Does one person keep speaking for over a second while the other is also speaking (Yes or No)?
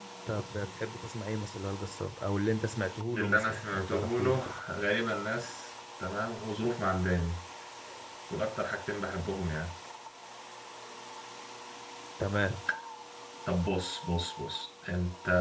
Yes